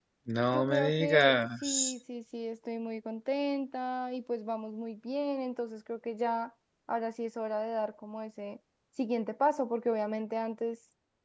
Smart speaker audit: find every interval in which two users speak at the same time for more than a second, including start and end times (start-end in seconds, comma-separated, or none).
0.5-1.9